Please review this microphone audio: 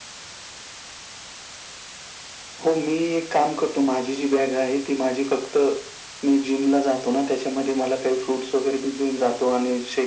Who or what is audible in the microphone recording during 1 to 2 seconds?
neither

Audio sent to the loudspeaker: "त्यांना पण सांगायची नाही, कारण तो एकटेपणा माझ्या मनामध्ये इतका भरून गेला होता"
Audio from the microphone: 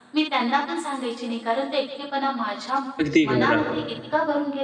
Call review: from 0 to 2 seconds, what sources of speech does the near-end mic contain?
echo only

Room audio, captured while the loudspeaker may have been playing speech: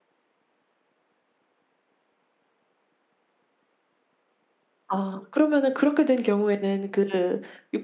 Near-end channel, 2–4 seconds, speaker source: neither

